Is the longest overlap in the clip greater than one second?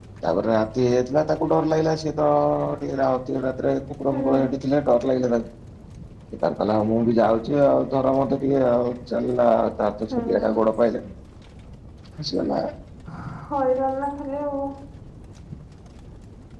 No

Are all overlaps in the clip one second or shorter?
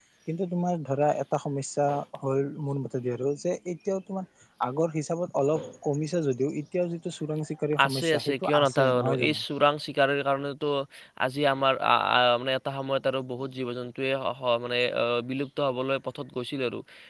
No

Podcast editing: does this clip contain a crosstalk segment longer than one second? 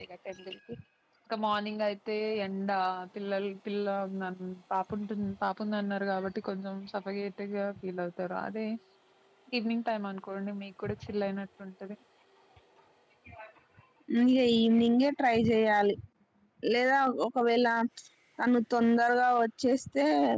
No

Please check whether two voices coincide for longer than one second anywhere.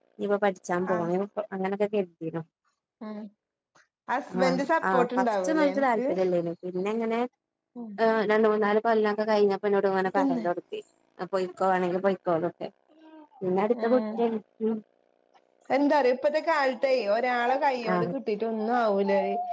Yes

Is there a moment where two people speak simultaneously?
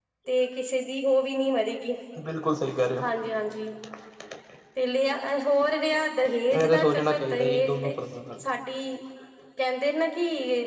Yes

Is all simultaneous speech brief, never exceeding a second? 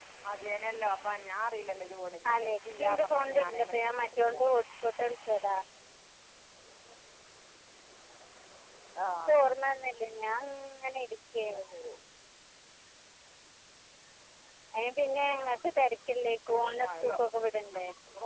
No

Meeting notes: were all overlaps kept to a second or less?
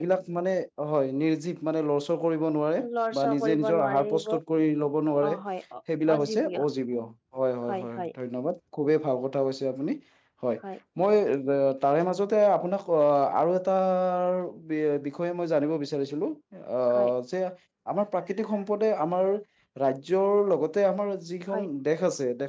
No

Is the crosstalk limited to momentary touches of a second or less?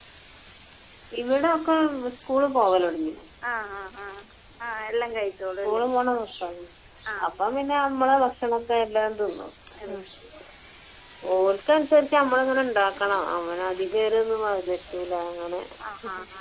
Yes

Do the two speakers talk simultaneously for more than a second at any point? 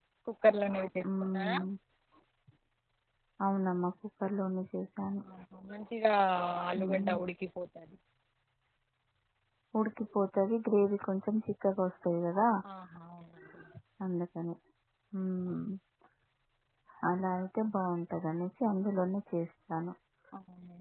No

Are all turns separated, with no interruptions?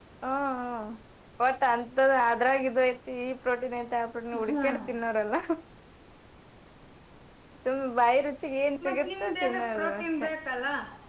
No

